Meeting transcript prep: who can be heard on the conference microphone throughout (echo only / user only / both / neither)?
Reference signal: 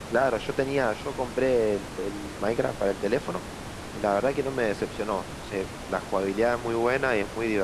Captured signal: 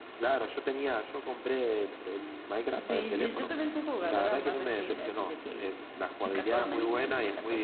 both